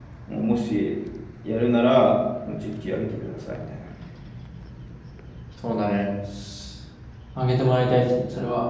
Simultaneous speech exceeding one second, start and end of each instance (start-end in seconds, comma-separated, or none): none